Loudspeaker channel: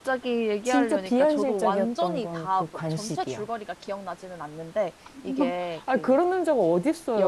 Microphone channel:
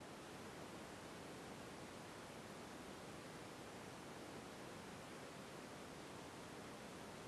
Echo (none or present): none